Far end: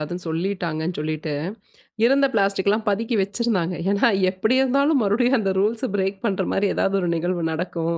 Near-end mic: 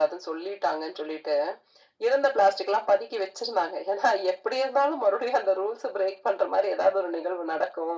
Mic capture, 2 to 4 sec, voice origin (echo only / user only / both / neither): echo only